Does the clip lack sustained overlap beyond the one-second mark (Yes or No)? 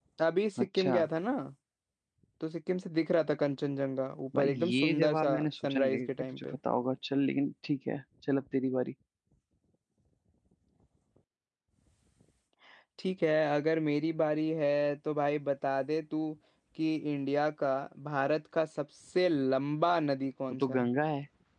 No